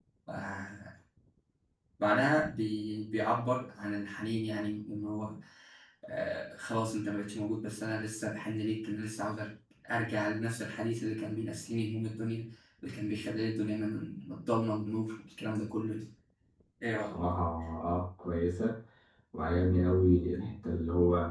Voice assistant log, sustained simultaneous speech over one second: none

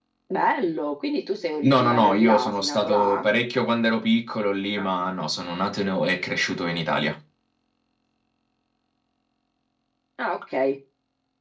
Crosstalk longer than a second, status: present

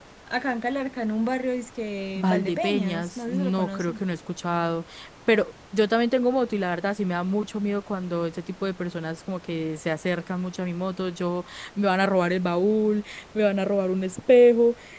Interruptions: present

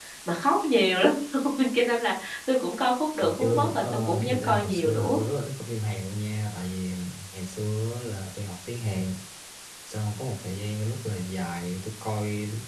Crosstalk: present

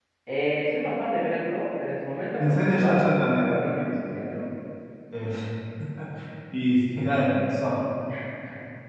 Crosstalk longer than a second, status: present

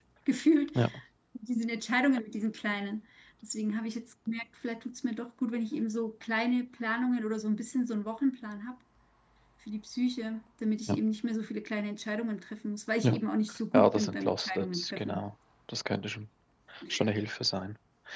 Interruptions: present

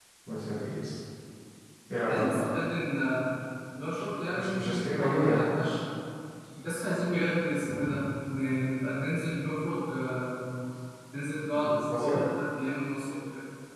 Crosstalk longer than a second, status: present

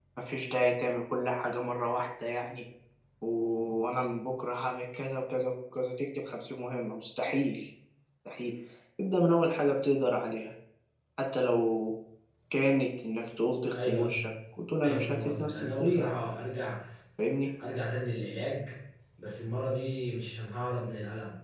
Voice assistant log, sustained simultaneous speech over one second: present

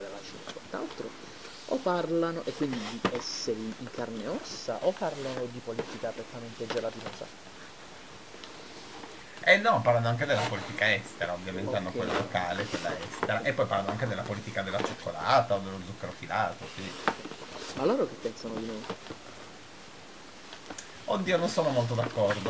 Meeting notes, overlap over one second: none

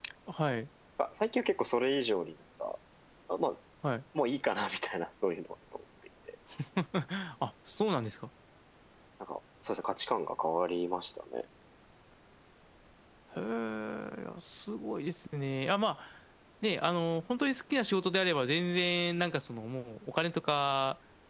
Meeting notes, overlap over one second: none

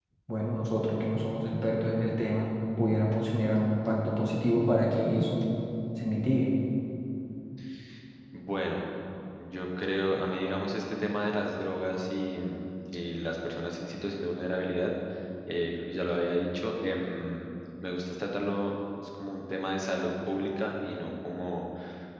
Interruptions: none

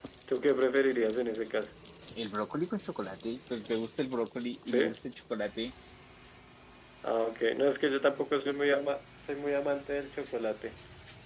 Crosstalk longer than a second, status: none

